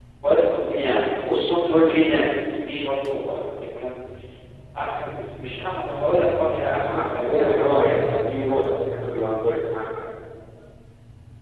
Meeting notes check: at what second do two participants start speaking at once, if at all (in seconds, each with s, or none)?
6.3 s